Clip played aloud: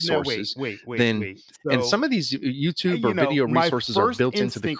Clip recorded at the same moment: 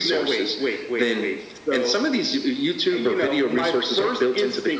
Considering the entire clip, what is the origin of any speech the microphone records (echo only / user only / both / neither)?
echo only